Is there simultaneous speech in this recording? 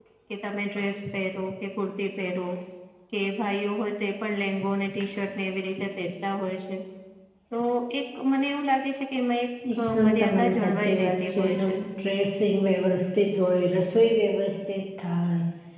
Yes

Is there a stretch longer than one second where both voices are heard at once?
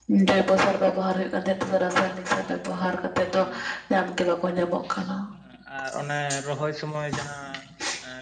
No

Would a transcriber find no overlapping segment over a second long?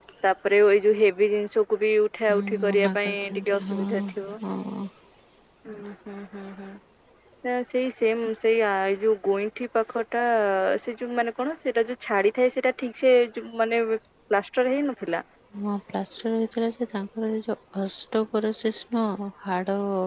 No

